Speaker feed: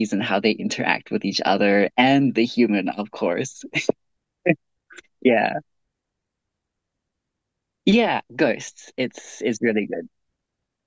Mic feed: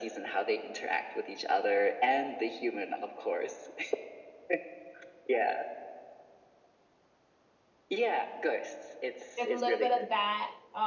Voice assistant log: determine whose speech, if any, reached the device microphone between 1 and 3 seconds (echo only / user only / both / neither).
echo only